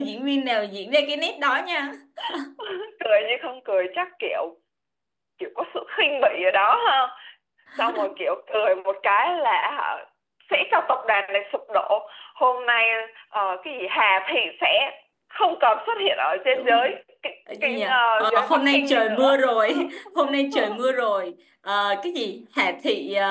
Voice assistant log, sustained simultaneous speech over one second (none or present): present